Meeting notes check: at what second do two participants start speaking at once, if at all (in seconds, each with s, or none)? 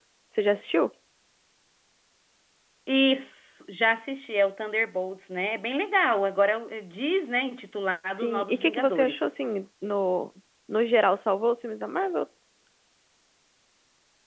8.0 s